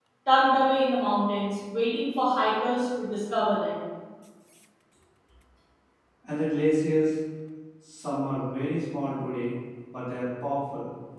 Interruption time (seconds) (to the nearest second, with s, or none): none